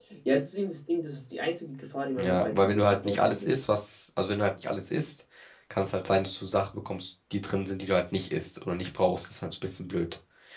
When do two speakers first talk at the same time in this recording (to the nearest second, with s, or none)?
2 s